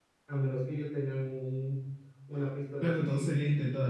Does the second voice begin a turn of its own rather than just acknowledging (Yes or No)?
Yes